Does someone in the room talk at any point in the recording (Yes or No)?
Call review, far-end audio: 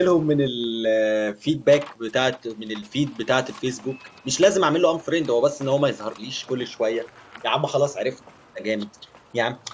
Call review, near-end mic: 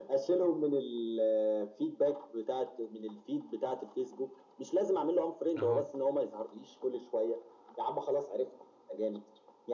Yes